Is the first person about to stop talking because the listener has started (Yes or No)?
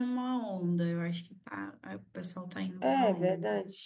Yes